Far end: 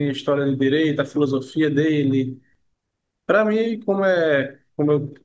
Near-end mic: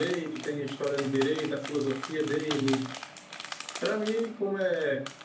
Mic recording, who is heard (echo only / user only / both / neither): echo only